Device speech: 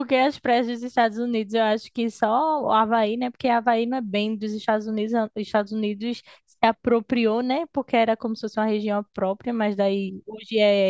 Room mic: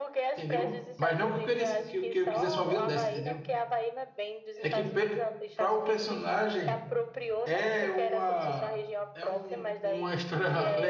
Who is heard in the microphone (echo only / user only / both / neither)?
both